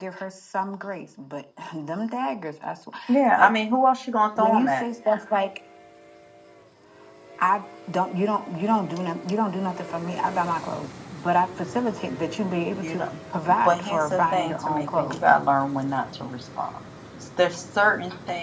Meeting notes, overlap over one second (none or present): present